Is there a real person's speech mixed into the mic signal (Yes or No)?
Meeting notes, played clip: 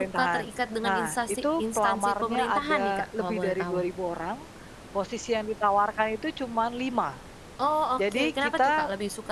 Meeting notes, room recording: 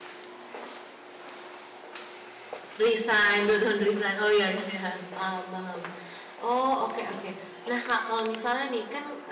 Yes